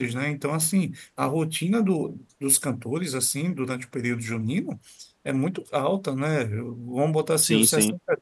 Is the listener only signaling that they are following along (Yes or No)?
Yes